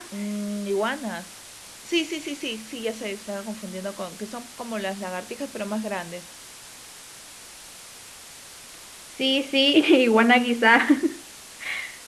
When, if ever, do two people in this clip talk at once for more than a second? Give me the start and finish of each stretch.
none

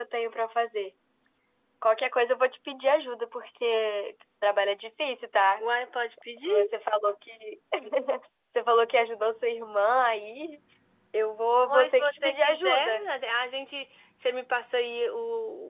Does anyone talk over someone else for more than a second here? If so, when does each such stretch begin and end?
11.7-13.0

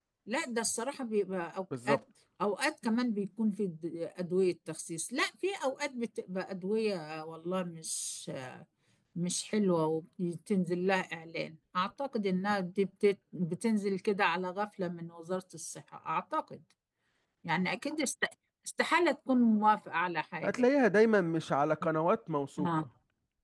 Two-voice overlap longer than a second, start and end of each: none

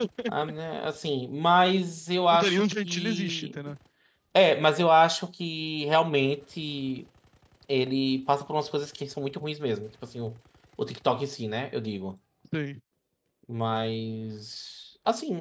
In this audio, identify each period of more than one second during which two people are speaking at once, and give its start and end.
2.3-3.6

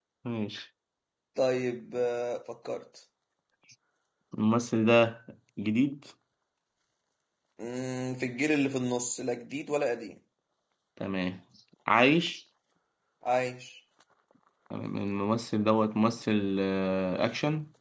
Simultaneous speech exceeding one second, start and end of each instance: none

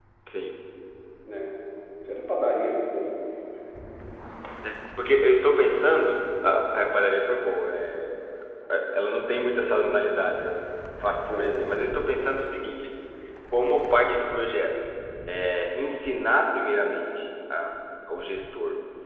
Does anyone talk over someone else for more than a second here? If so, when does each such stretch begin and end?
none

